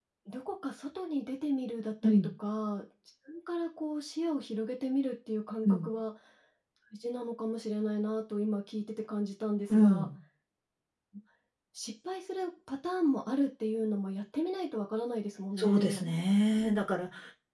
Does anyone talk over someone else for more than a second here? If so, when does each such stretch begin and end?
none

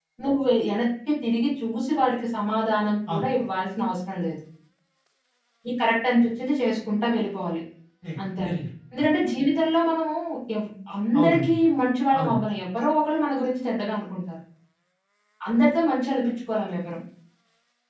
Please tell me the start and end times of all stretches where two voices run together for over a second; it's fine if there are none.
none

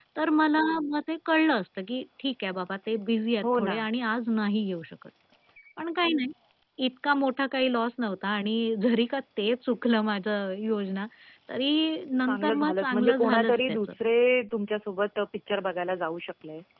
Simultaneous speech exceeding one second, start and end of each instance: 12.3-13.8

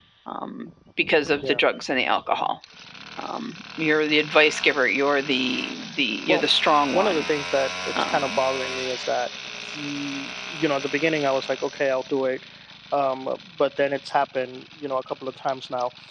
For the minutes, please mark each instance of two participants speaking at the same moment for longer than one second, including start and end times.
none

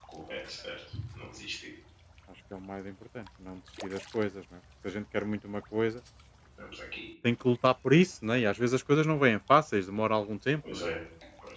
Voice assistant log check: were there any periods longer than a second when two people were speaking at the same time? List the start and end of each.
none

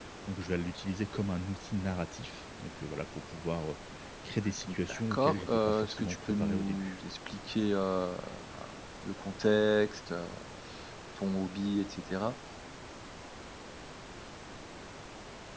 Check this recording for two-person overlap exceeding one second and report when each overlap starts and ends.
4.7-7.0

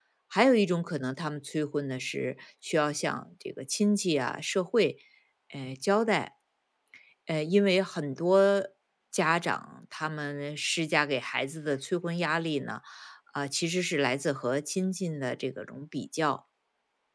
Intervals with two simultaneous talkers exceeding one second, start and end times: none

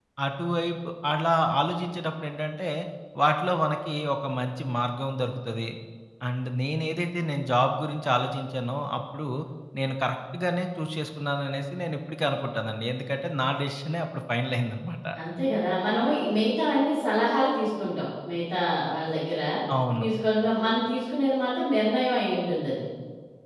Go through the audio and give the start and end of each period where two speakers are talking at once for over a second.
none

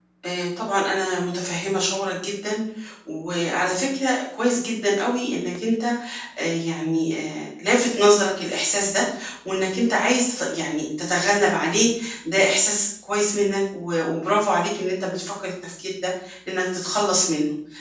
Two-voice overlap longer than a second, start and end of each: none

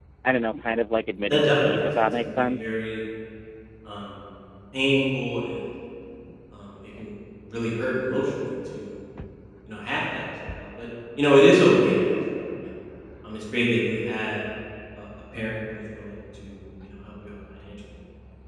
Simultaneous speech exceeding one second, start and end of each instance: 1.3-2.9

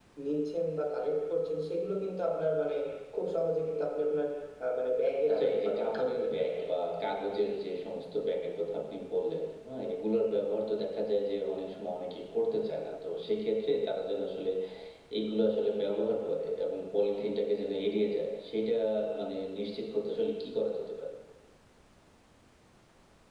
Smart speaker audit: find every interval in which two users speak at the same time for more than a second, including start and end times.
5.3-6.5

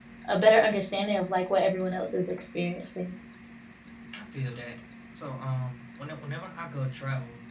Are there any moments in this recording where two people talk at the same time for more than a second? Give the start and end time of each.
none

